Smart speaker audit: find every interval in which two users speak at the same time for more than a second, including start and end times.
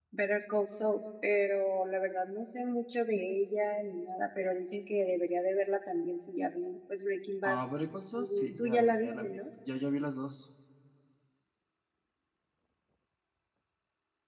8.1-9.4

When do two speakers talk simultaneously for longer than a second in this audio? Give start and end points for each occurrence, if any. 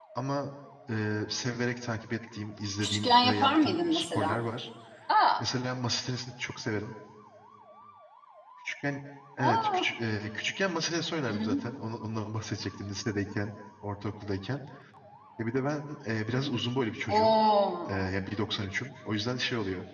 2.8-4.4

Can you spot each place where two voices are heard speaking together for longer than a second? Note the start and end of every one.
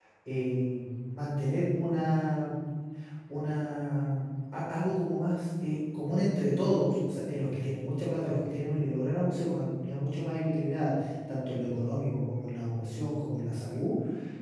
none

